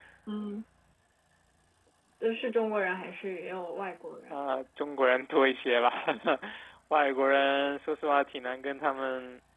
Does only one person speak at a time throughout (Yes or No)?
Yes